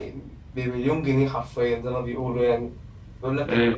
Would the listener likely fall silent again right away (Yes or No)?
Yes